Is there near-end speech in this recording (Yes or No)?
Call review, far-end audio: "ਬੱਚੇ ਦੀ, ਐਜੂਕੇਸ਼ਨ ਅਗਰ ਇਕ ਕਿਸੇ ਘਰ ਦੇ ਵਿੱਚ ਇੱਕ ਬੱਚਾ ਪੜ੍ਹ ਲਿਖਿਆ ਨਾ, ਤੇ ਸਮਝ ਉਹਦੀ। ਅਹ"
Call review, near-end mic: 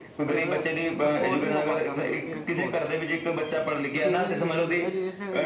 Yes